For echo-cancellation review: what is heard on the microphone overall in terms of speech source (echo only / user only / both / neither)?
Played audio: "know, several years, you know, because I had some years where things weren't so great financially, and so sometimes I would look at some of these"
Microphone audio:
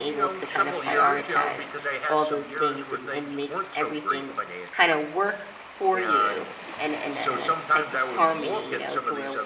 both